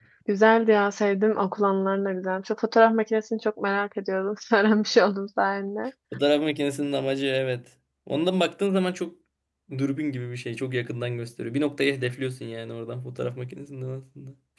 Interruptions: none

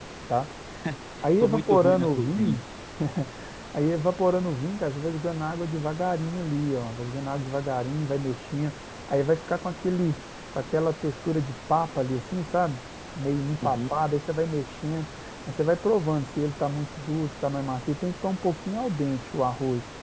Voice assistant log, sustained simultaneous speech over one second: present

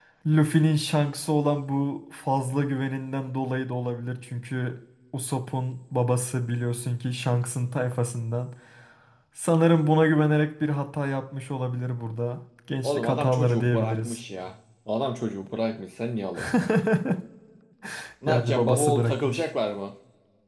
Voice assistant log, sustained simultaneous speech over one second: present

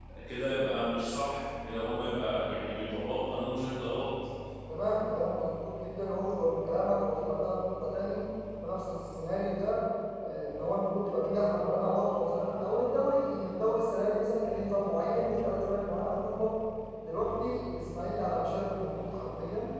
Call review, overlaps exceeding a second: none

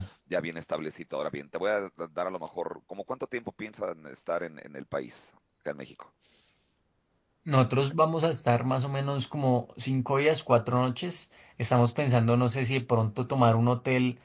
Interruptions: none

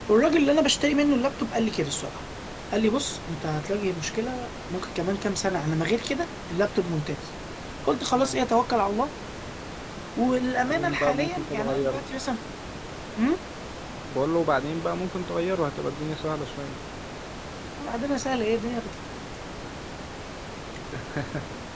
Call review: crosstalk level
present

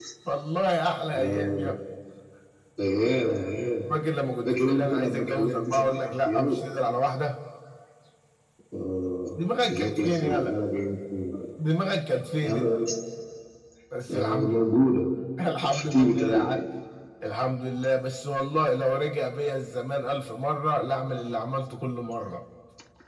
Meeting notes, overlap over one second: present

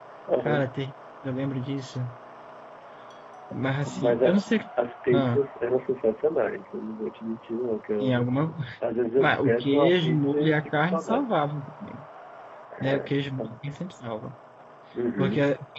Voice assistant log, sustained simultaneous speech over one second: present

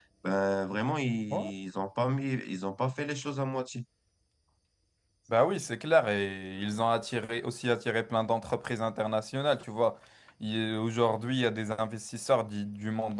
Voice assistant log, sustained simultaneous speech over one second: none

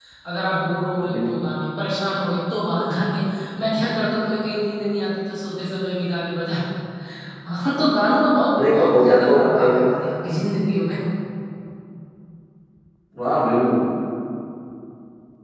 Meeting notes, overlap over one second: present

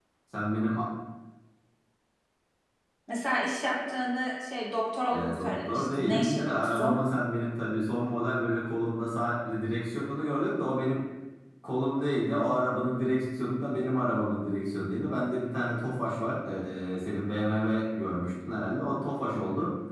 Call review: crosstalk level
present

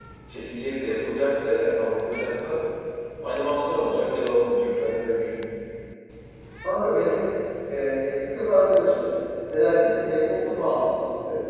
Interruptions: none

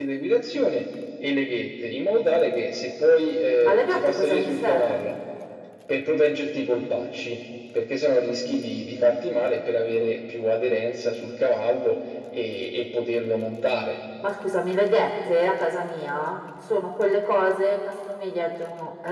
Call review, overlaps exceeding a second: present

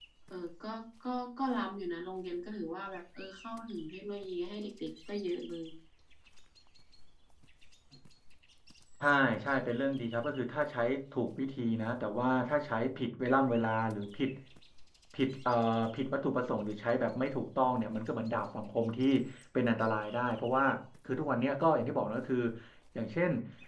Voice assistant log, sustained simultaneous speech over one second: none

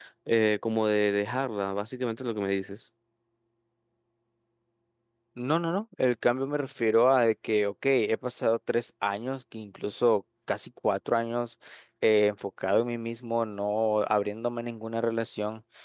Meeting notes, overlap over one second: none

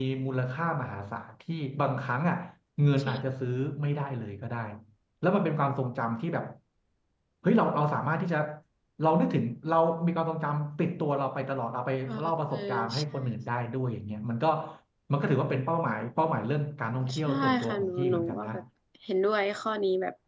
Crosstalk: present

